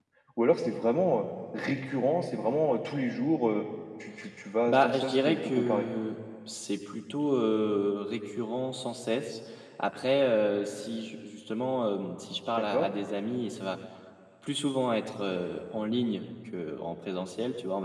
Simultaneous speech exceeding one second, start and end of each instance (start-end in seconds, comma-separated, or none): 4.7-5.9